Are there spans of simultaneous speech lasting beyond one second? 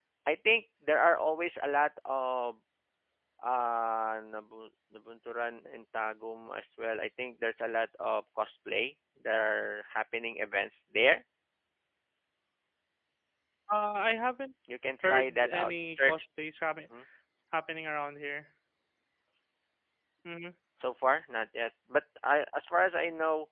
Yes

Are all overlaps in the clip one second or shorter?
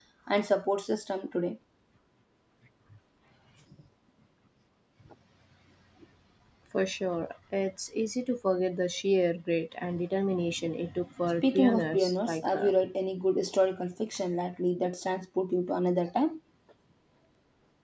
No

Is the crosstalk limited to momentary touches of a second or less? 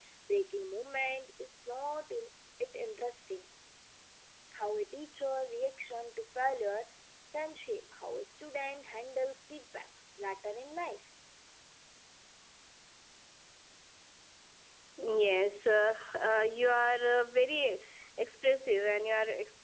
Yes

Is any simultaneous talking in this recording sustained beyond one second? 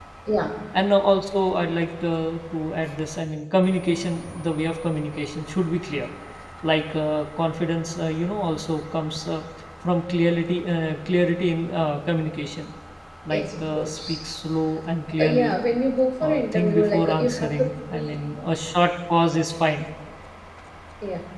Yes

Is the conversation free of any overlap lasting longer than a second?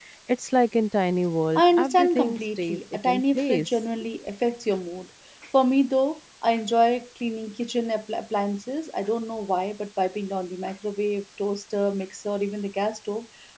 No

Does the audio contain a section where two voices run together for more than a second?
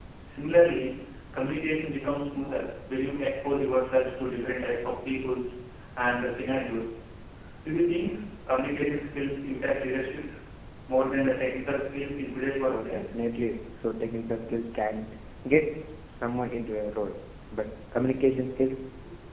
No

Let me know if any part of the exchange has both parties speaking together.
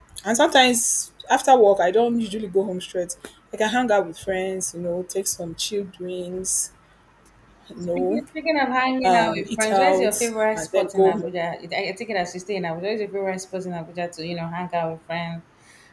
Yes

